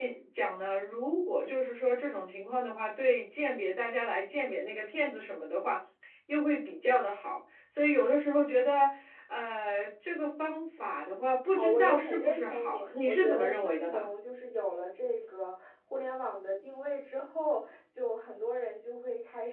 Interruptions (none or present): present